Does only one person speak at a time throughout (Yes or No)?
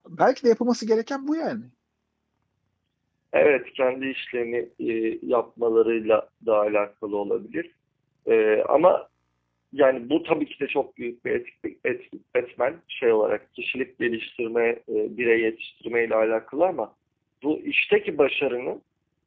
Yes